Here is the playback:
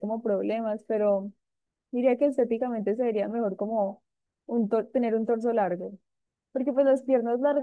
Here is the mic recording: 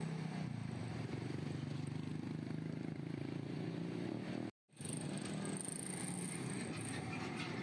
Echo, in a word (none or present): none